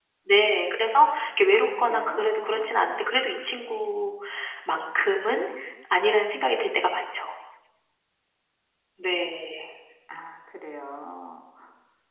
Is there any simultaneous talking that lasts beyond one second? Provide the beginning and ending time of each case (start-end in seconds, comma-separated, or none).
1.5-2.7